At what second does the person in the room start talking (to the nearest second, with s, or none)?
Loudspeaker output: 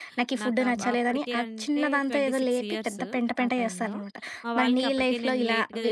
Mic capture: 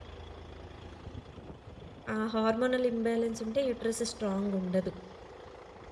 2 s